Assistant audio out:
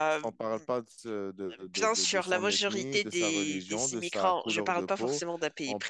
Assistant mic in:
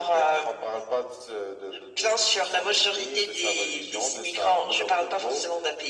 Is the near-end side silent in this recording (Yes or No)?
Yes